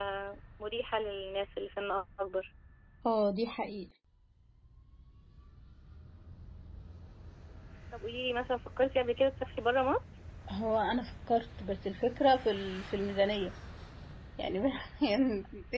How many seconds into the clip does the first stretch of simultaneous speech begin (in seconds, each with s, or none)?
none